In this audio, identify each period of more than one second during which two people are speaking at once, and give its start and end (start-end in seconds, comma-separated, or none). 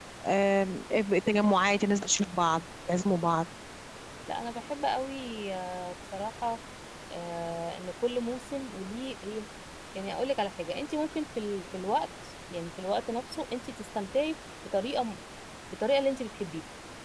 none